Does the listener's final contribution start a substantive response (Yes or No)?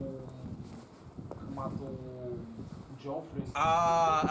Yes